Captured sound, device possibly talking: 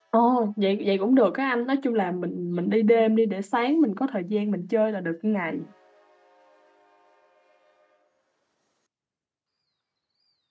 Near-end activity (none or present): present